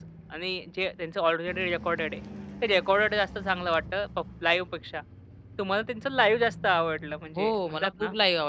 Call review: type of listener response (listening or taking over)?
taking over